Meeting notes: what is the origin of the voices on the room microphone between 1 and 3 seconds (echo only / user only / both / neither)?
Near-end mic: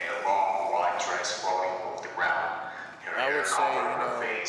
echo only